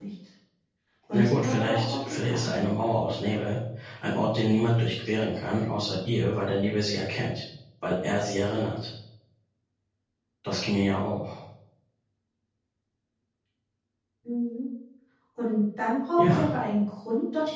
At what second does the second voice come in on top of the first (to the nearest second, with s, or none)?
1 s